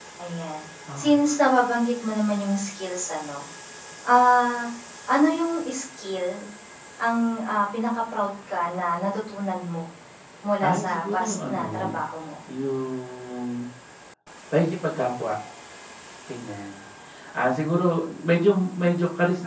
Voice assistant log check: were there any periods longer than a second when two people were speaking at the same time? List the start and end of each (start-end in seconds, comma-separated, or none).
10.6-12.0